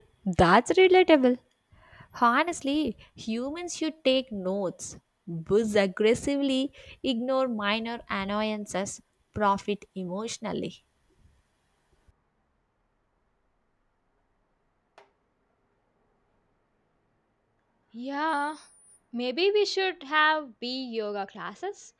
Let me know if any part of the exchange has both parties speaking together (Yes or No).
No